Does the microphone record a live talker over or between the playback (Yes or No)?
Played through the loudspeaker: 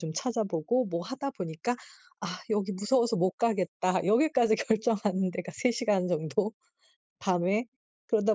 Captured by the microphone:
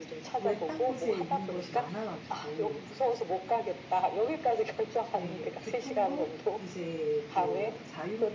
Yes